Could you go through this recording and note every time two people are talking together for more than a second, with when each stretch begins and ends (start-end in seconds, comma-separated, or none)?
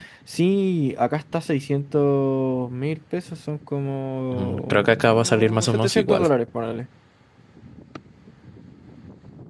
4.3-6.3